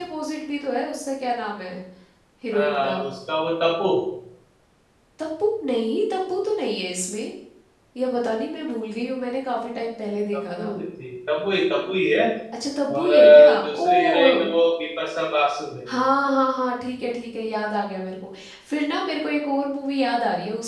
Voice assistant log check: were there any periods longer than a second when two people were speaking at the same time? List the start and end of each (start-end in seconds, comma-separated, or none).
12.9-14.5